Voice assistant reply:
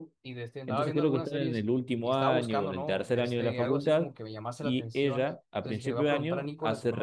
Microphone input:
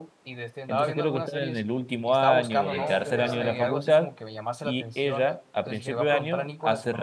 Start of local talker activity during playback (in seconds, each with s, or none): 2.5 s